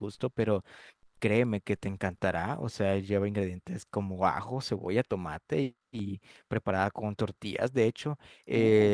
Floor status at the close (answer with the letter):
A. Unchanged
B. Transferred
A